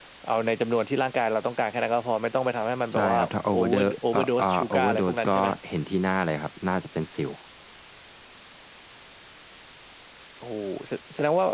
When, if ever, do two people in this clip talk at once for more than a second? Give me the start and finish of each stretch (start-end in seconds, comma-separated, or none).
2.9-5.5